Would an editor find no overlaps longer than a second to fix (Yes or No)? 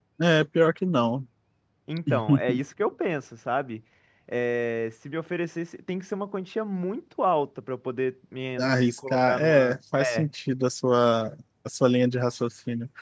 No